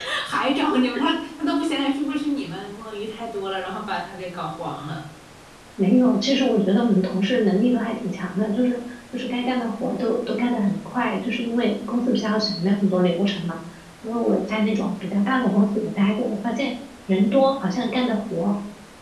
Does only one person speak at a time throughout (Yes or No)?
Yes